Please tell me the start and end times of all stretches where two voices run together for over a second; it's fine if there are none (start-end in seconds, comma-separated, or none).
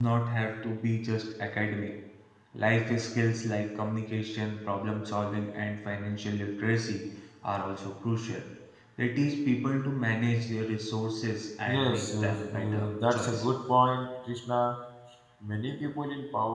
11.7-13.4